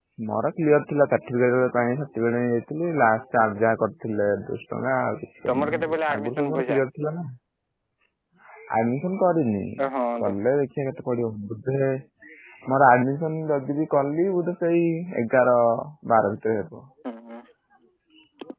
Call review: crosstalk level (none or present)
present